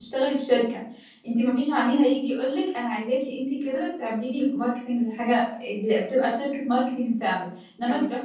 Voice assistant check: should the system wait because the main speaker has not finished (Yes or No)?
Yes